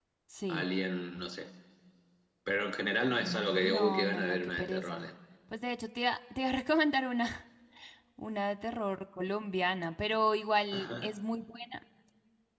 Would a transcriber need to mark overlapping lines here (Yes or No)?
Yes